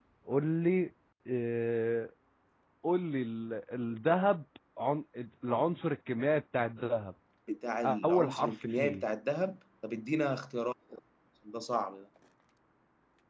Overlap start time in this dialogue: 8 s

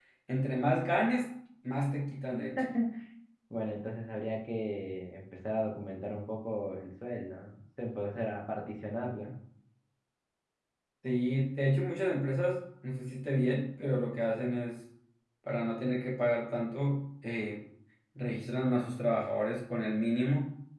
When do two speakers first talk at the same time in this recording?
none

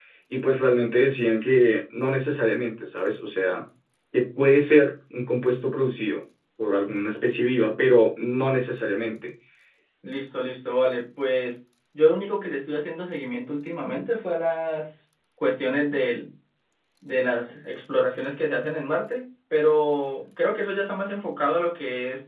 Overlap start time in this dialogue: none

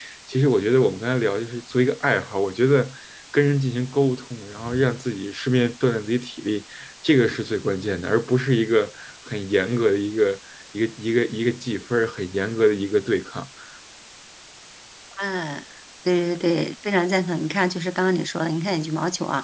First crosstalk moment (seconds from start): none

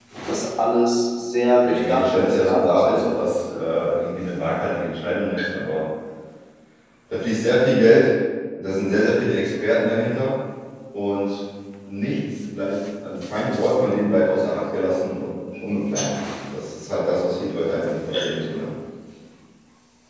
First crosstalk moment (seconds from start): 2 s

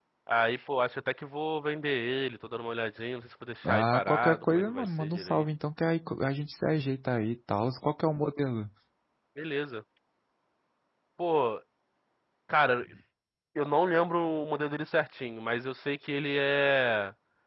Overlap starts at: 4 s

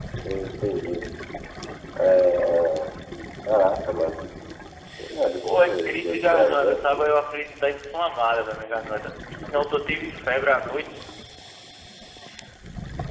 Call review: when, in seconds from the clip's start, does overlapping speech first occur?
5 s

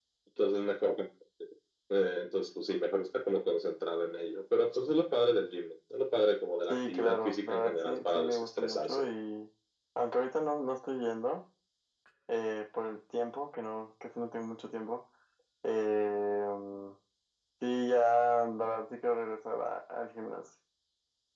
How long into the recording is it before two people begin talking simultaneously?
7 s

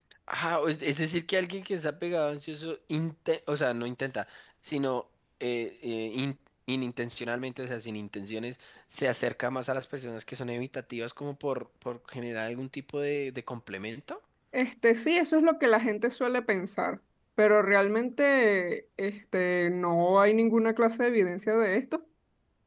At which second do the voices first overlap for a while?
none

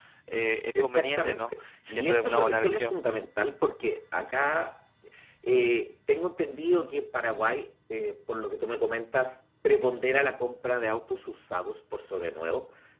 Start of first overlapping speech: 1 s

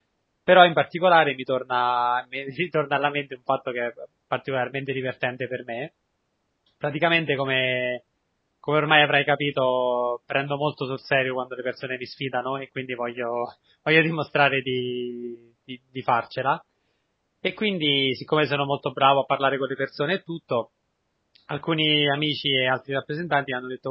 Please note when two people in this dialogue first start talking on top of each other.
none

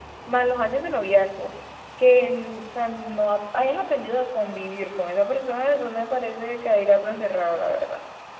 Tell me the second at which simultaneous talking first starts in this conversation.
none

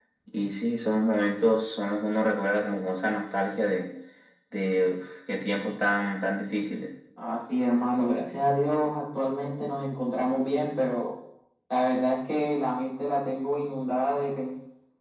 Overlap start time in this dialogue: none

